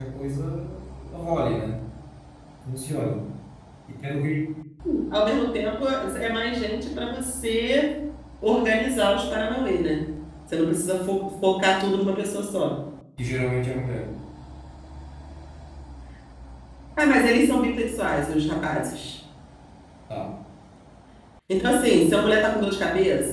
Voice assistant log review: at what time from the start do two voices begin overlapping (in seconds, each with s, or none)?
none